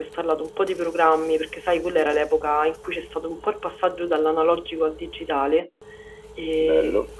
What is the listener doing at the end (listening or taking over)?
listening